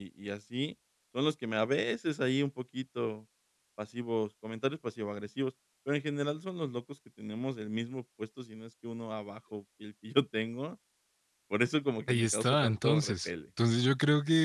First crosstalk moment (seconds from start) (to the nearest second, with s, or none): 12 s